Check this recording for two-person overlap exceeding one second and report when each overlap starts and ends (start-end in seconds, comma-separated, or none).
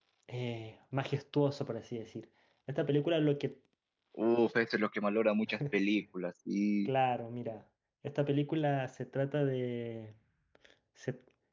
none